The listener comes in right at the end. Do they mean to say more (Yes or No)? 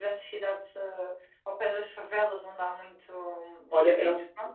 Yes